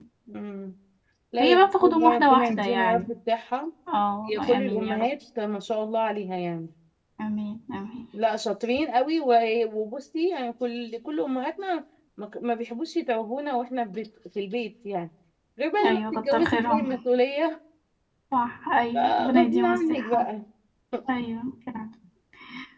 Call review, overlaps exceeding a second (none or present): present